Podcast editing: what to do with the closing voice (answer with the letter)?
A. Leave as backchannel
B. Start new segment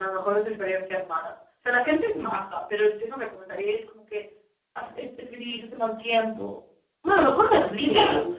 B